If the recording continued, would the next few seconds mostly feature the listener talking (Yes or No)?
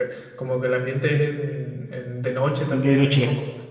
No